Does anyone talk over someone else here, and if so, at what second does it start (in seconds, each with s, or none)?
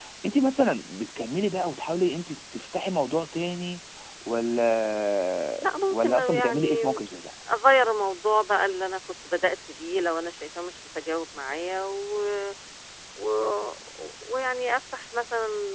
5.6 s